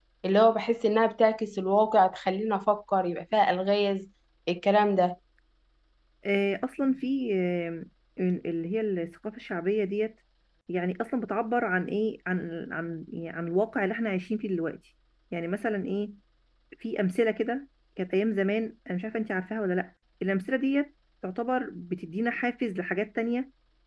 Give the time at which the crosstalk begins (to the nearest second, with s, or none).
none